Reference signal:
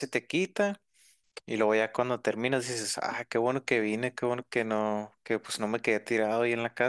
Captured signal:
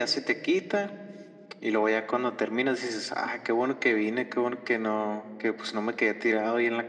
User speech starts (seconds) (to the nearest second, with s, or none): none